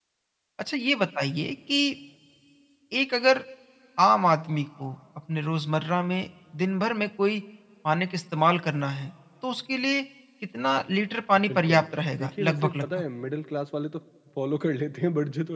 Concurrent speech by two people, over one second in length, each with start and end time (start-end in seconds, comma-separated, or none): 11.5-13.0